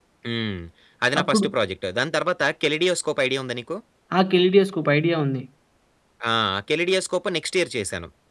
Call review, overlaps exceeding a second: none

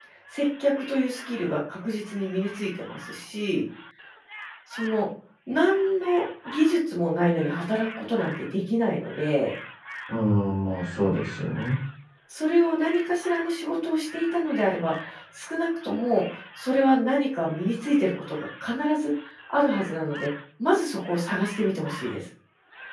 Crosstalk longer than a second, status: none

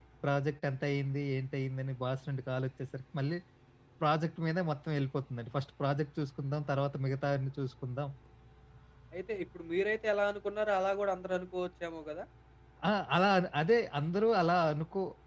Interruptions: none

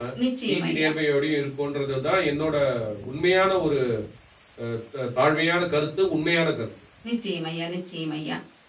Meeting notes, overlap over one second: none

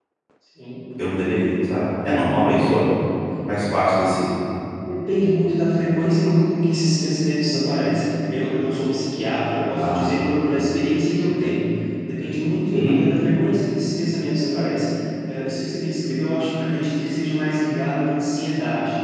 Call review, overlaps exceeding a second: none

